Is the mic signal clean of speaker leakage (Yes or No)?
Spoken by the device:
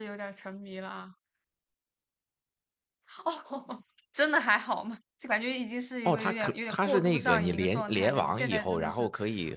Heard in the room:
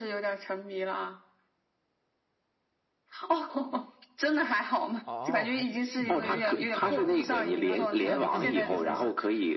No